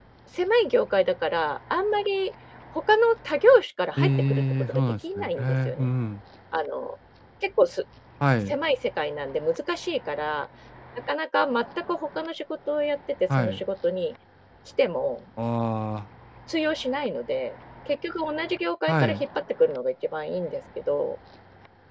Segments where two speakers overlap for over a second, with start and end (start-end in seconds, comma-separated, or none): 4.0-5.9